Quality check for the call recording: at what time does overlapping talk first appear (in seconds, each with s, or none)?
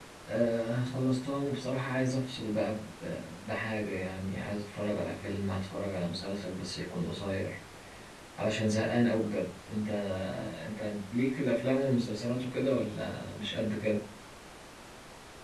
none